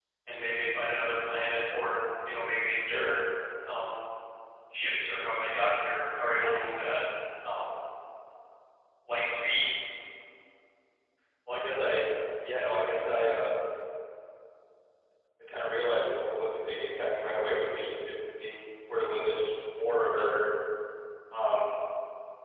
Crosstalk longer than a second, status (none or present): none